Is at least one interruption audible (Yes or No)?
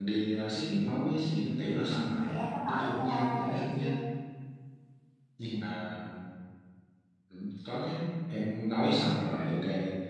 Yes